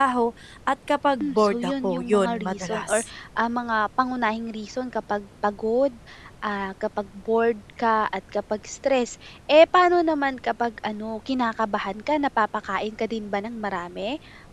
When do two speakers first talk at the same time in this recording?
1.2 s

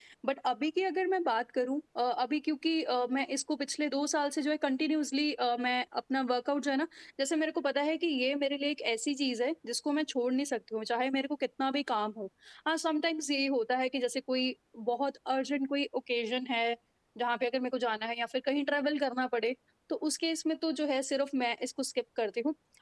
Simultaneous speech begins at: none

